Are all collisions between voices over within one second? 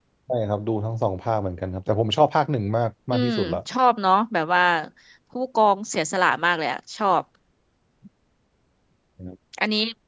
Yes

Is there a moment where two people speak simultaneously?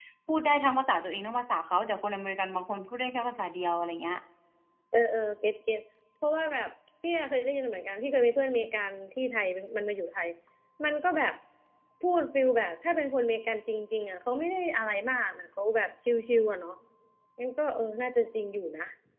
No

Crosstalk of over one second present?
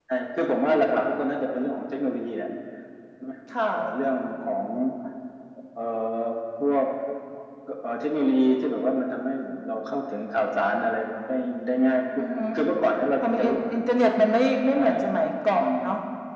No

